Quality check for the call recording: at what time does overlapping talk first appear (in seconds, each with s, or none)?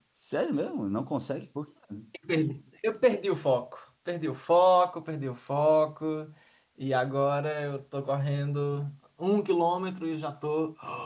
none